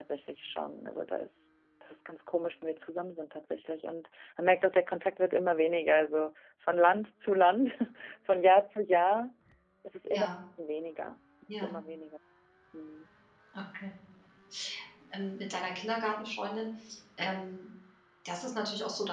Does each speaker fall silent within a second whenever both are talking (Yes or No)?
Yes